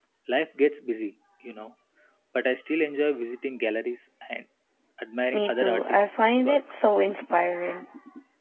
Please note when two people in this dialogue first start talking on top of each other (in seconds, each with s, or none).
5.3 s